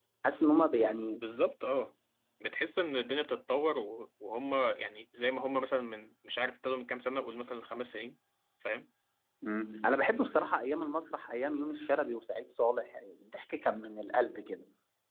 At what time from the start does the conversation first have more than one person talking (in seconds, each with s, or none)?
none